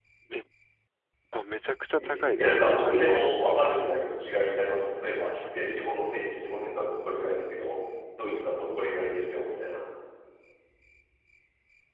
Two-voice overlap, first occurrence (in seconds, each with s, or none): 2.0 s